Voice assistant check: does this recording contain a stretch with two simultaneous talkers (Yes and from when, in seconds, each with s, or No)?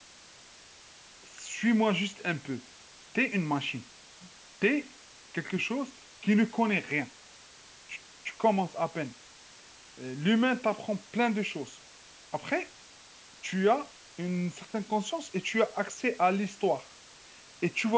No